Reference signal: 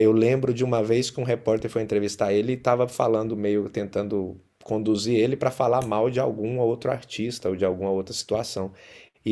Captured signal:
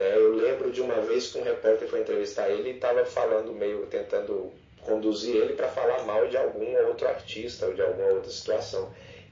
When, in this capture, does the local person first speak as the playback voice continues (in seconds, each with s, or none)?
none